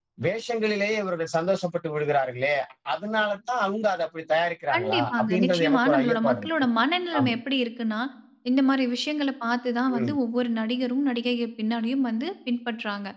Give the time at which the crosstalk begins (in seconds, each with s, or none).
4.7 s